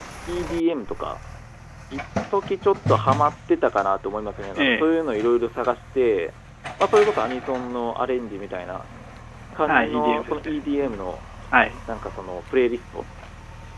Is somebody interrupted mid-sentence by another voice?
Yes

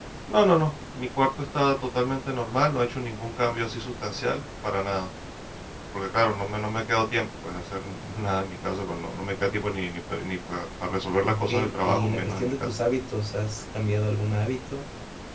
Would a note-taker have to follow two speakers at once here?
Yes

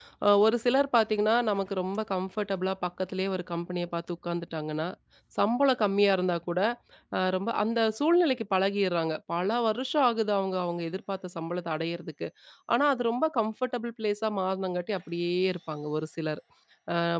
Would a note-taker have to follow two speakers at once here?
No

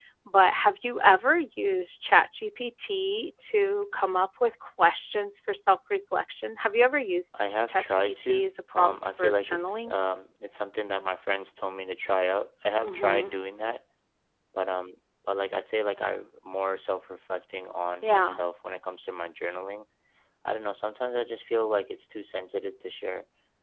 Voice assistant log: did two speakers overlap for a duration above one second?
Yes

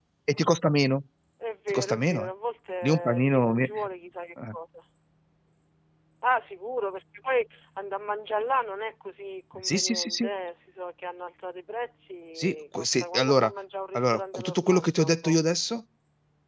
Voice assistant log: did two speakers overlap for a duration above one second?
Yes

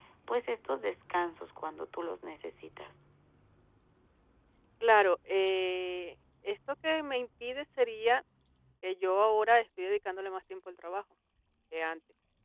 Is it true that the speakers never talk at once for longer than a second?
Yes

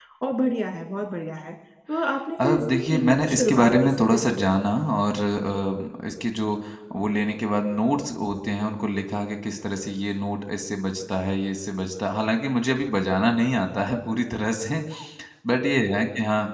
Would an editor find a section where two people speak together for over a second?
Yes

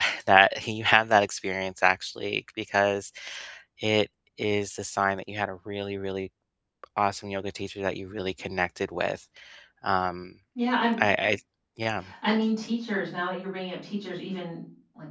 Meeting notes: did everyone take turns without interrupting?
Yes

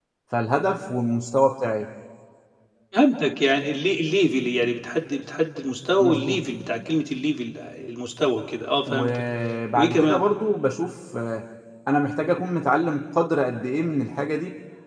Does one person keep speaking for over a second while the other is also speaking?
No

